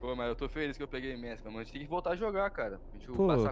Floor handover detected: Yes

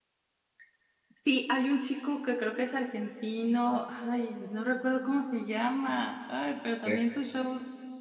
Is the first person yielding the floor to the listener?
No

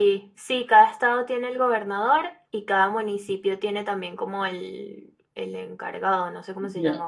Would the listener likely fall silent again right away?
No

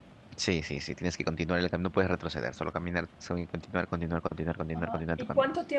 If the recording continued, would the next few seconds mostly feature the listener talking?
Yes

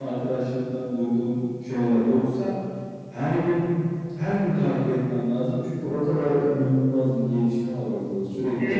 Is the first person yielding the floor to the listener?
Yes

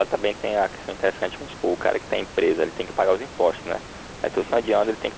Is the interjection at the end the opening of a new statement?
No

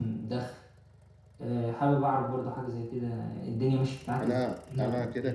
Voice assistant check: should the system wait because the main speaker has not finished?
No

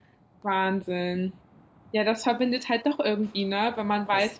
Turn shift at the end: No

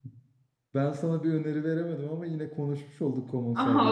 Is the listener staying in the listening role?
No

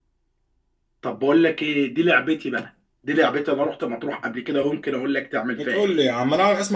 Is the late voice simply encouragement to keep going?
No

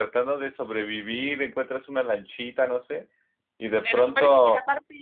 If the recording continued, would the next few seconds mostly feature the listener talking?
Yes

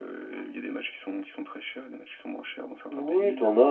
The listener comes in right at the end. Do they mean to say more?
Yes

